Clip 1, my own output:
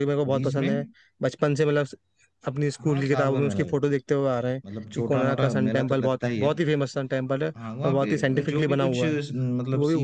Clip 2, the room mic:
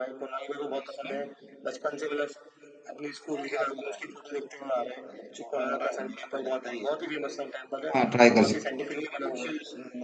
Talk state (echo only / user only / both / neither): both